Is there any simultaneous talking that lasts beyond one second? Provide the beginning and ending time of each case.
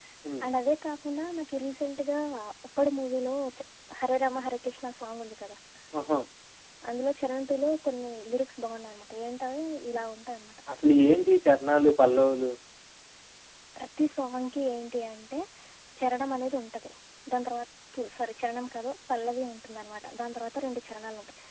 none

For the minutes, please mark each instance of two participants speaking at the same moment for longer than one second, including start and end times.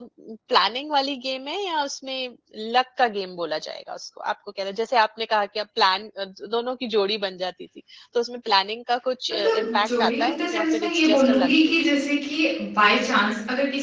9.3-11.7

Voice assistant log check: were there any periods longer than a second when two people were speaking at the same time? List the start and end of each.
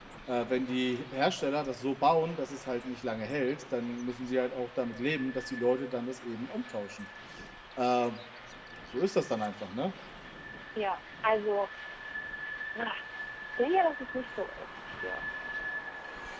none

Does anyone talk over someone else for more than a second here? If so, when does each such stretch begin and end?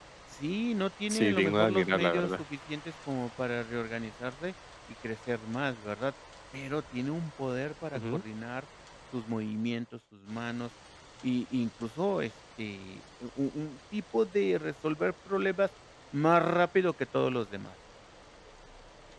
1.1-2.4

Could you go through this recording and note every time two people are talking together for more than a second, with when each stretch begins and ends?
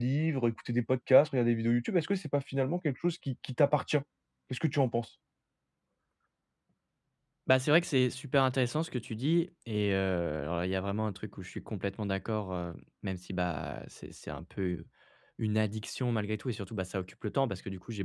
none

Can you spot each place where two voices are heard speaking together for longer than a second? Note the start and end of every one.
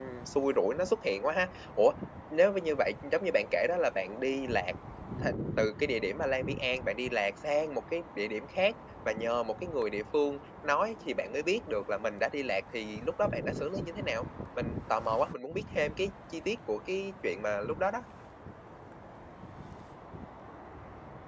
none

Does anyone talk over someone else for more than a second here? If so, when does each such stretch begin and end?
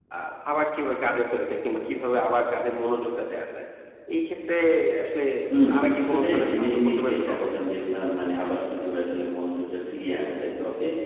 5.7-7.5

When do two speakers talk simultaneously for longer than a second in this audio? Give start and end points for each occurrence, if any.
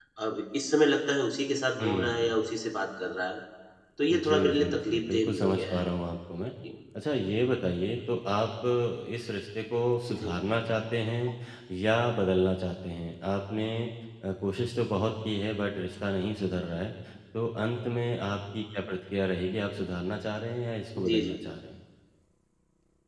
4.1-5.8

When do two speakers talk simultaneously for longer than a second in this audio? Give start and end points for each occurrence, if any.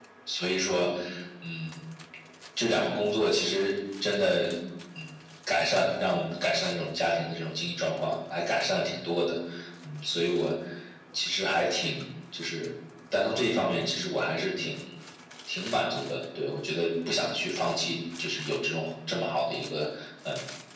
none

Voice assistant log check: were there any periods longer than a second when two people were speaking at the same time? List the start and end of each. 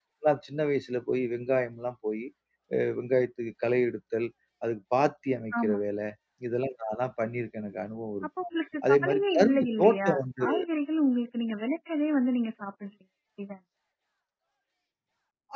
8.9-10.4

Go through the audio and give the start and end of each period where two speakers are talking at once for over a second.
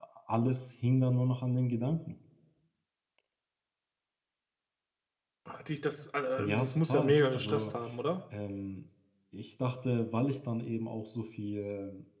6.4-7.7

